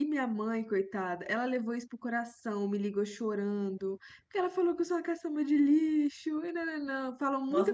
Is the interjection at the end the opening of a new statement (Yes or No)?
Yes